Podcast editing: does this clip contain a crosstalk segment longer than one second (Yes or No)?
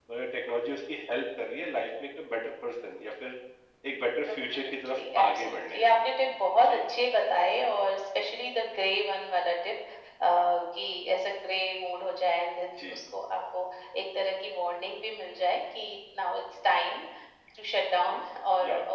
Yes